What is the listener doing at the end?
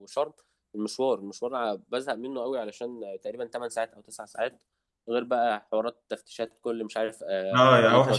taking over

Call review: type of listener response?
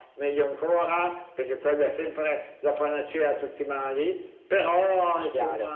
listening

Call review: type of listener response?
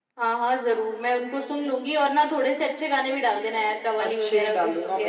taking over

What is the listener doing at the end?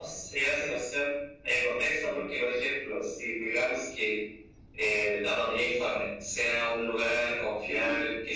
listening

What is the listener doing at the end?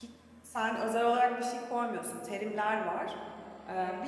listening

